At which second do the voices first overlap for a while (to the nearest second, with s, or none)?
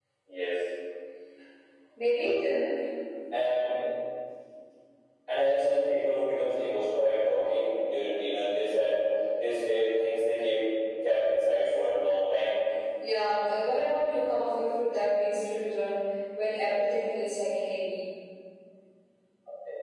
none